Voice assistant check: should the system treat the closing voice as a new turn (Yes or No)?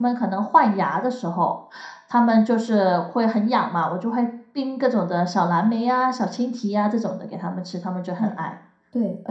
Yes